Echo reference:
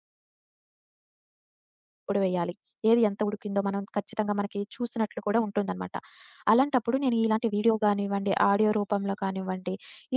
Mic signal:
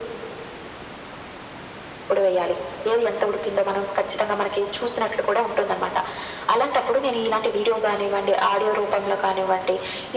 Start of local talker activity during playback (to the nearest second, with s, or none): none